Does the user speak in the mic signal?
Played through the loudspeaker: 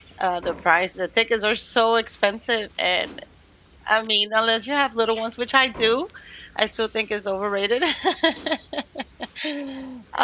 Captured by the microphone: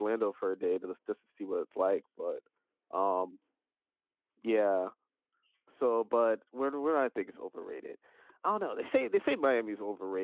Yes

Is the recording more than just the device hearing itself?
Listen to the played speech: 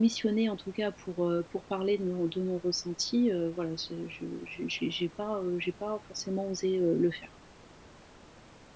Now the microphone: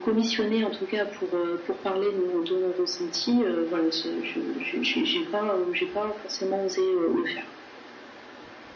No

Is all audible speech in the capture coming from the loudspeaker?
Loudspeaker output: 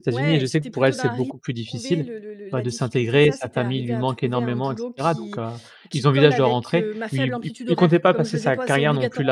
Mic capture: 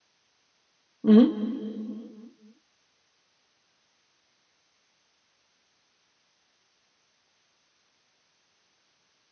No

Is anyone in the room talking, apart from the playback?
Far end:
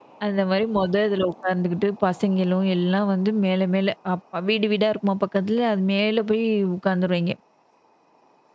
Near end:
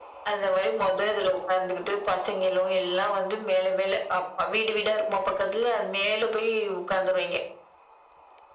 No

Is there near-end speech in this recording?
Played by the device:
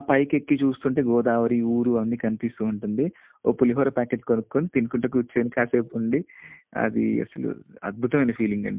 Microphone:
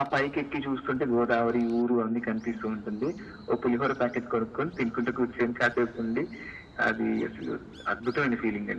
No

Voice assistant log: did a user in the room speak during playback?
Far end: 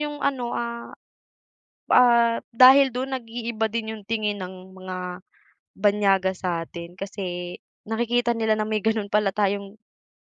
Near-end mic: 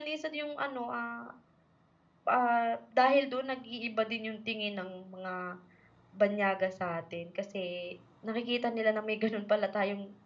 No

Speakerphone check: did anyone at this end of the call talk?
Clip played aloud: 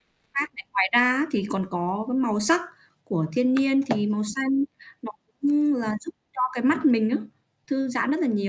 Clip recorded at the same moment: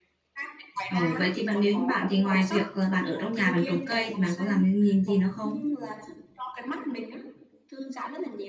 Yes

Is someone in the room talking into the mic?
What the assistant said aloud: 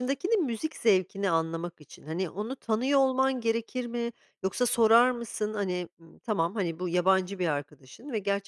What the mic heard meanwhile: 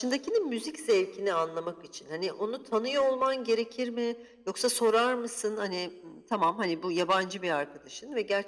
No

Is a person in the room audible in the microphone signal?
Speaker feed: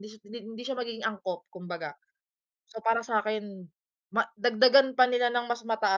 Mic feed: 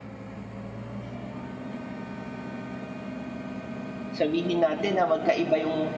Yes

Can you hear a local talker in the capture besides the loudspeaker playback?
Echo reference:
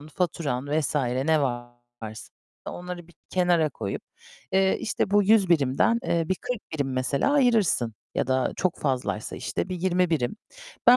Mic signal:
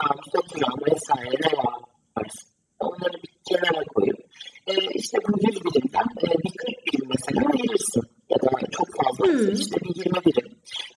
Yes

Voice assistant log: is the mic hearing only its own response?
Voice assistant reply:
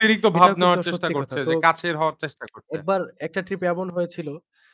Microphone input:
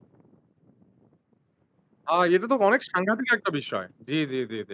No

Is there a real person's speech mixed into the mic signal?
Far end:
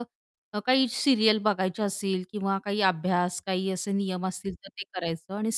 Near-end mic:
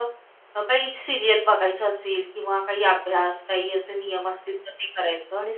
No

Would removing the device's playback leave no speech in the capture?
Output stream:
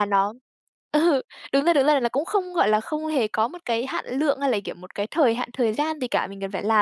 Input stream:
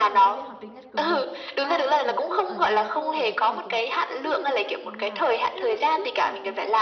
No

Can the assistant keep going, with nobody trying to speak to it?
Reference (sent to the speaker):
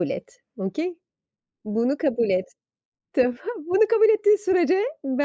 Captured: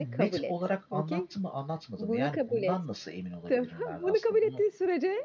No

